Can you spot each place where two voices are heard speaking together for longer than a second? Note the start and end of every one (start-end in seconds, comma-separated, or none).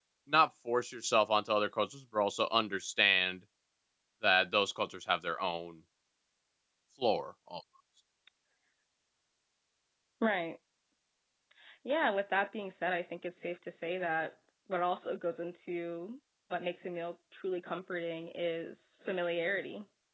none